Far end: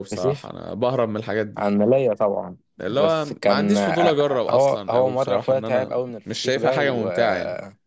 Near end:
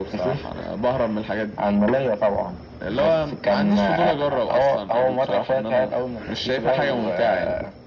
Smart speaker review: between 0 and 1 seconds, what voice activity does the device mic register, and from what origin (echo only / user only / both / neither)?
echo only